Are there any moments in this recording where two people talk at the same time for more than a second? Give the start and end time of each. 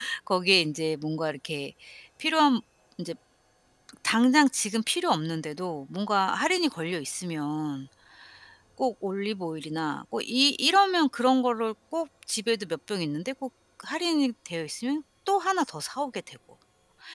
none

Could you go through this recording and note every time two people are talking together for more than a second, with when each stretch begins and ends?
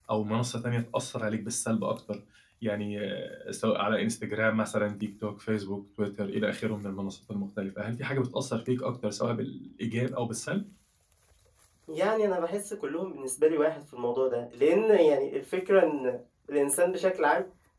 none

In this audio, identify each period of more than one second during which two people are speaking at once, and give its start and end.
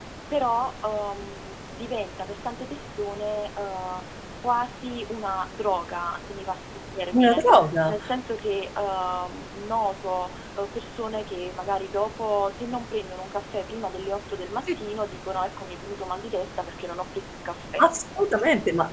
none

